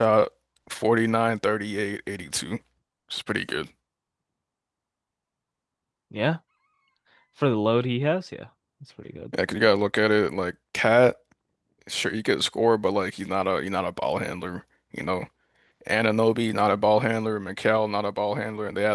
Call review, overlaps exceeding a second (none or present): none